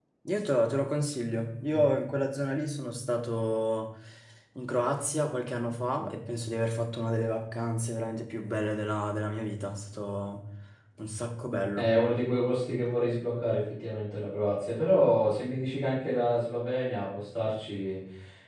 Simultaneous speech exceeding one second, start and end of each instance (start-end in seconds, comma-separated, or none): none